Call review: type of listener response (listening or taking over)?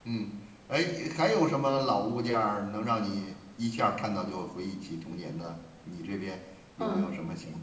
taking over